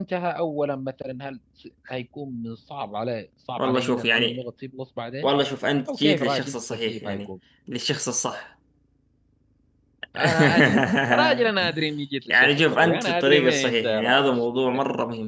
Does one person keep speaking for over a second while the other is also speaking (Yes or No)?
Yes